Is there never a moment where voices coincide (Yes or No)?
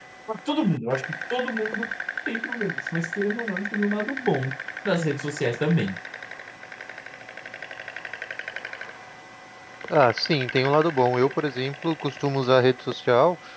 Yes